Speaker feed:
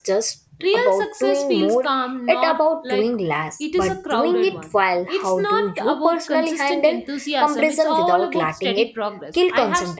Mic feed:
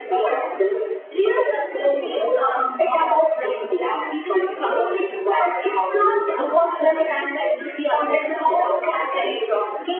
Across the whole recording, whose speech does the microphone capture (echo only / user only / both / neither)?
echo only